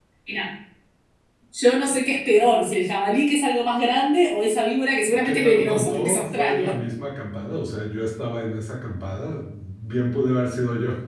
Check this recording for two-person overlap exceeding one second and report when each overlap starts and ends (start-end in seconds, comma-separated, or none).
5.2-6.7